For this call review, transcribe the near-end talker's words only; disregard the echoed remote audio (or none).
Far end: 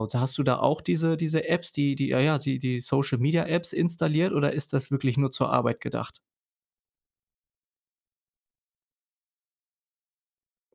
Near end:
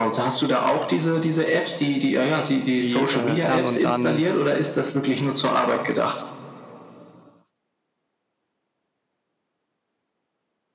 die, äh, dann und dann,